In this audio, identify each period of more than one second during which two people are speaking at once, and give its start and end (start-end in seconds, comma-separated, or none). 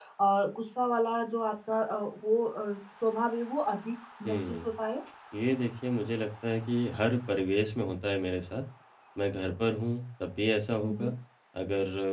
none